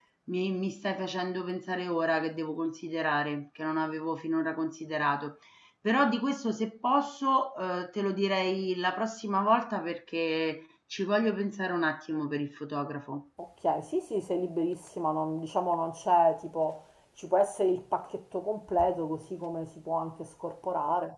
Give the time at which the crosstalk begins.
none

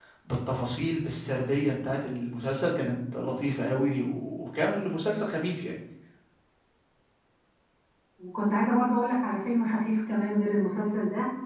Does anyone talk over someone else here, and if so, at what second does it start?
none

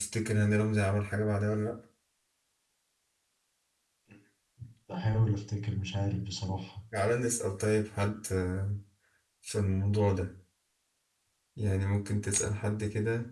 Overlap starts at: none

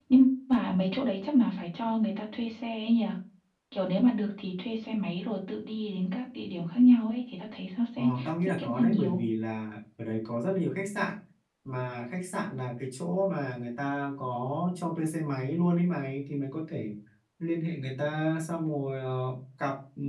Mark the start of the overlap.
8.0 s

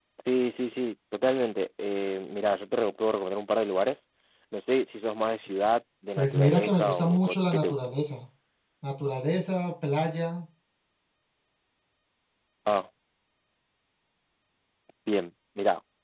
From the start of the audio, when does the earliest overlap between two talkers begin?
6.2 s

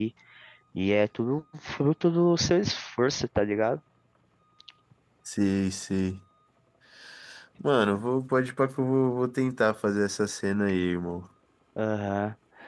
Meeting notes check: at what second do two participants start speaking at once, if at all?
none

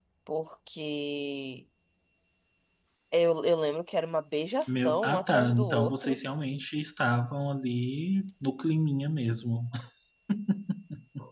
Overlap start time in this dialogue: 4.7 s

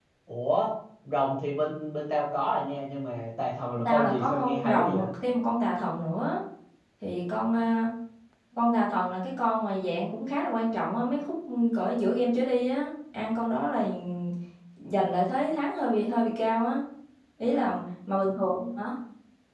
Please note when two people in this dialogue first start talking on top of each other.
3.8 s

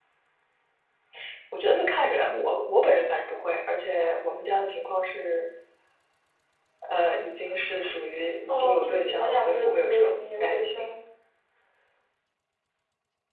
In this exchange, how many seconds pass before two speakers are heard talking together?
8.5 s

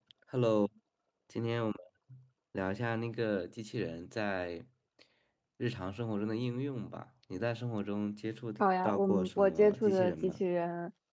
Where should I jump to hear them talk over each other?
8.6 s

